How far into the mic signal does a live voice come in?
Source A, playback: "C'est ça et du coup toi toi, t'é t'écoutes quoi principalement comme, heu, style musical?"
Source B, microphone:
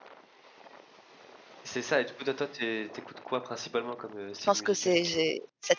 4 s

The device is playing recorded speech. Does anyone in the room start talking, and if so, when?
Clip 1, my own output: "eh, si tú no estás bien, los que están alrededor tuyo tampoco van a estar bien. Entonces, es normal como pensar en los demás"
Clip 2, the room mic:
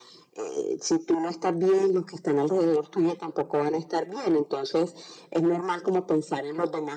none

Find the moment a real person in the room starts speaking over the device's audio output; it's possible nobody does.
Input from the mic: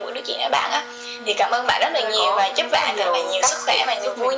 none

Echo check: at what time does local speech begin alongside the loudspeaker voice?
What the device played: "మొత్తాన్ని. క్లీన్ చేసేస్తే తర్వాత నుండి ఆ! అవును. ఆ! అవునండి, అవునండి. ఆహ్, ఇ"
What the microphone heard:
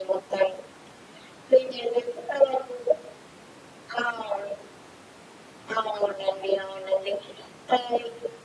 none

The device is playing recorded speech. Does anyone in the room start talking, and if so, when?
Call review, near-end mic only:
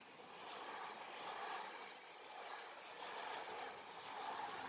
none

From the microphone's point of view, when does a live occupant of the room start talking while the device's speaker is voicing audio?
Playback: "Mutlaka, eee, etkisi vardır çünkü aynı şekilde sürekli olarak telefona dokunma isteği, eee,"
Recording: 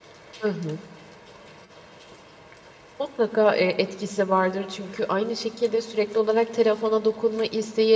none

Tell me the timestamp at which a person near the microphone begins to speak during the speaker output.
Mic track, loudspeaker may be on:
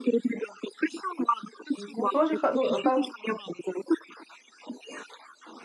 2 s

